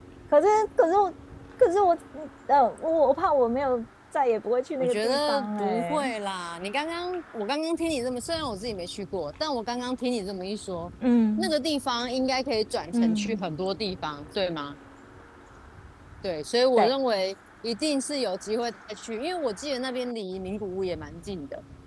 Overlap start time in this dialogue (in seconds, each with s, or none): 4.8 s